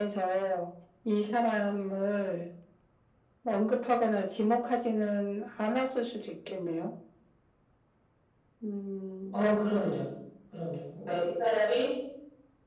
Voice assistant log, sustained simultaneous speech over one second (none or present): none